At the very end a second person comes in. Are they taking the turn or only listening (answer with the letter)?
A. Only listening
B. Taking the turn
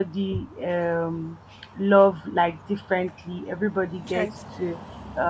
A